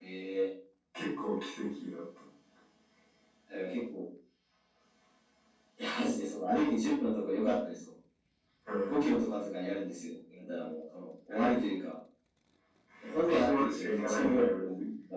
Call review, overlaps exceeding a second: present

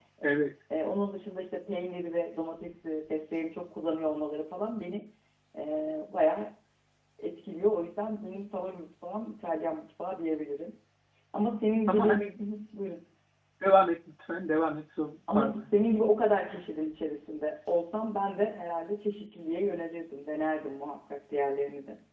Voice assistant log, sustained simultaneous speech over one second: none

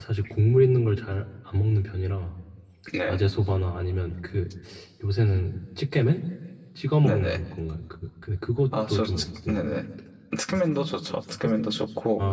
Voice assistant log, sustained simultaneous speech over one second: none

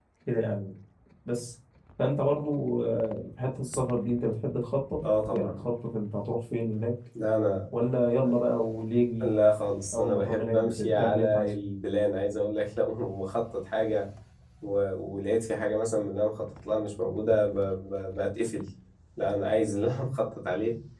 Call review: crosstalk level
present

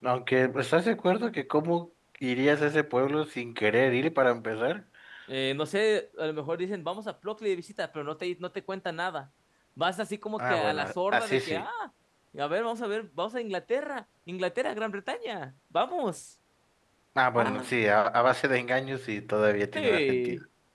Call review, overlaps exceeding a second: present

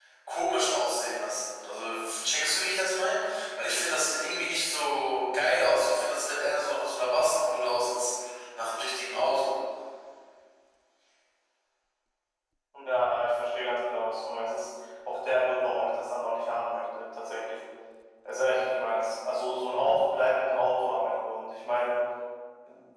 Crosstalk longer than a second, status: none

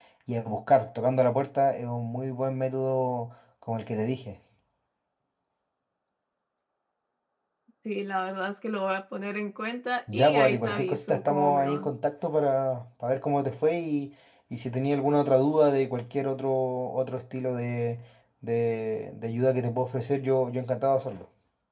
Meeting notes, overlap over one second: present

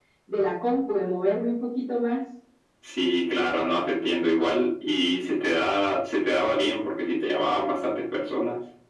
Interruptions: none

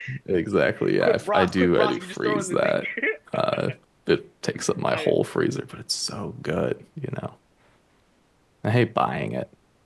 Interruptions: present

